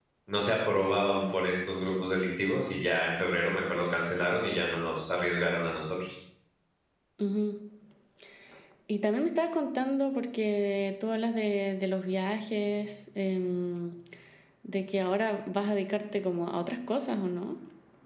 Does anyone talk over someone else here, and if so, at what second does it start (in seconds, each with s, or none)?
none